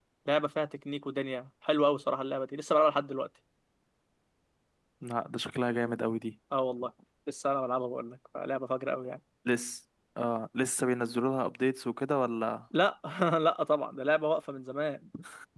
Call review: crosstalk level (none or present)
none